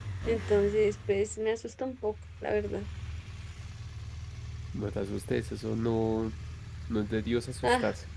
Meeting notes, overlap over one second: none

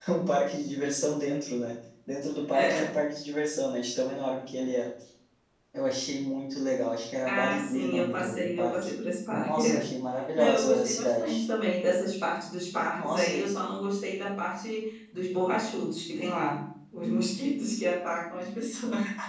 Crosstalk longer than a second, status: present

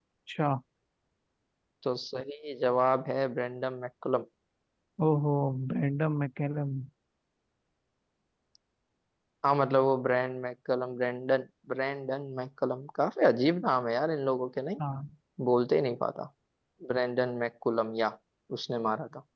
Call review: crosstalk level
none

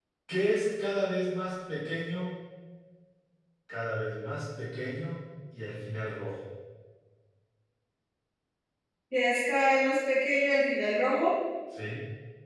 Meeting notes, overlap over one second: none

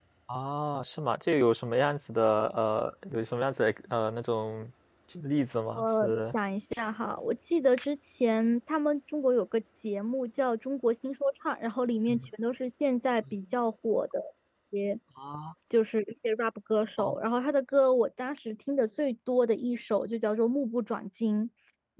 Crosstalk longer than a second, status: none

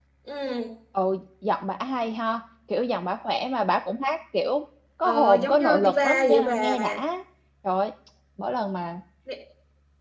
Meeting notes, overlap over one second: present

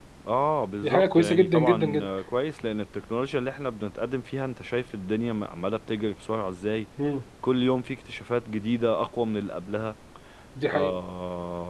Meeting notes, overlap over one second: present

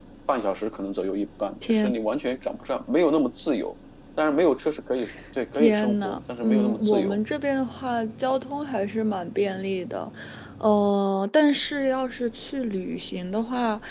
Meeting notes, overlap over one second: present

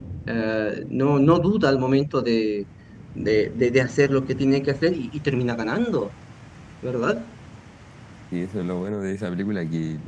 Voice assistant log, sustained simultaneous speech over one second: none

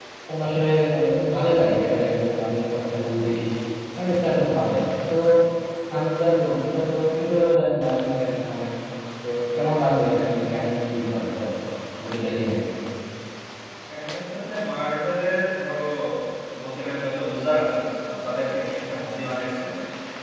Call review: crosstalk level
none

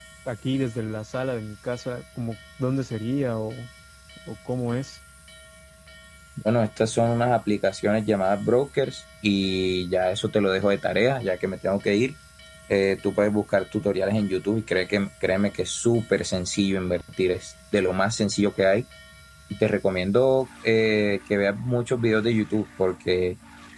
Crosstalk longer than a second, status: none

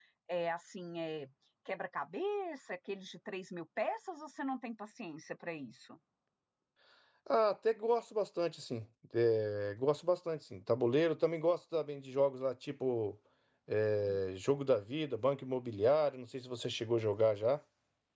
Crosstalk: none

